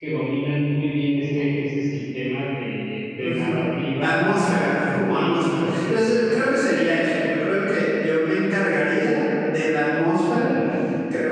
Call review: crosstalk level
present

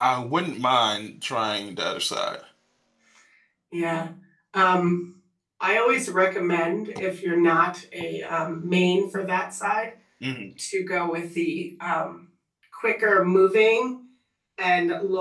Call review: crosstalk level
none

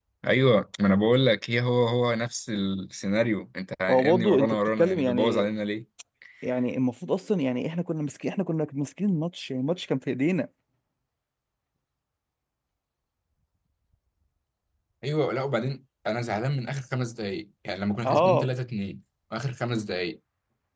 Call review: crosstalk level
present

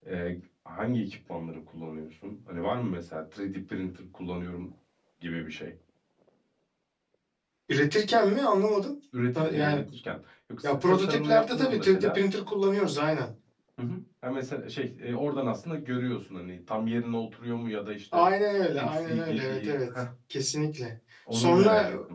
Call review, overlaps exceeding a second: present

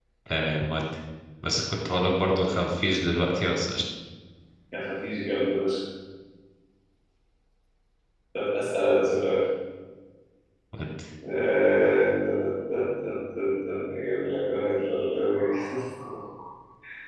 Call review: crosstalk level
none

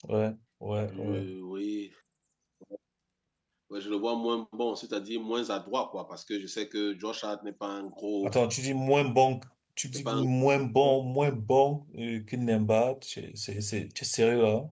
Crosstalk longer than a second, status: none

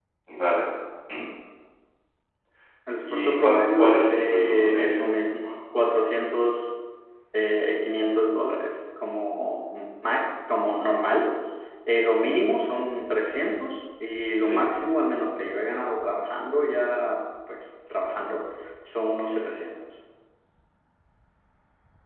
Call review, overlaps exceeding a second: present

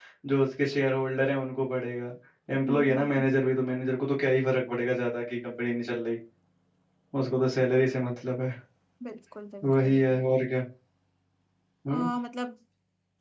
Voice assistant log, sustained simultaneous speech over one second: none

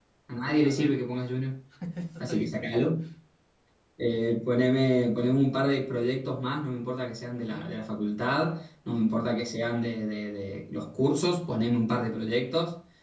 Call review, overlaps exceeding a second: none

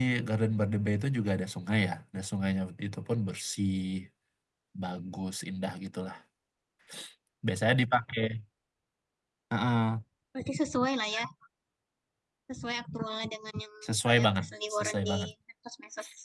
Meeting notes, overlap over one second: present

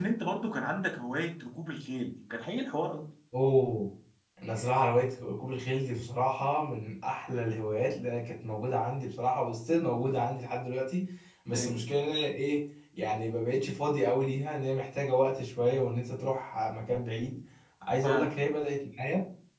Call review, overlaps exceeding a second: none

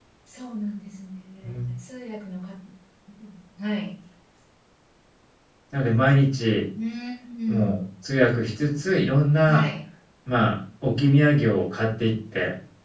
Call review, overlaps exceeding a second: none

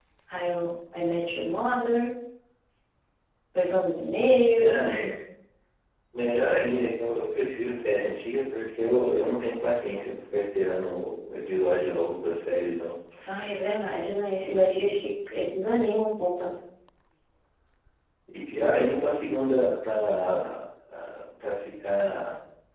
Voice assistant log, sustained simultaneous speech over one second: none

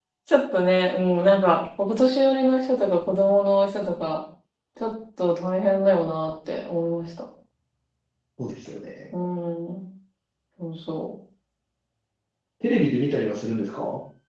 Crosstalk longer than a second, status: none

